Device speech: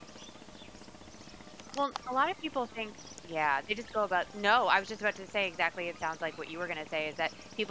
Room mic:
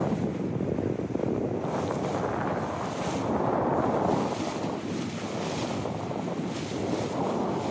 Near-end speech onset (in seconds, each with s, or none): none